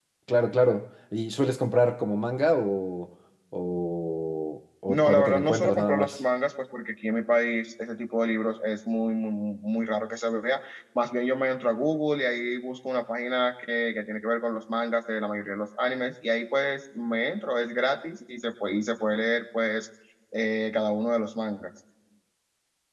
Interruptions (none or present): present